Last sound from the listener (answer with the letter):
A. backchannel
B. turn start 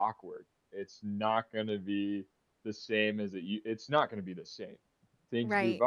B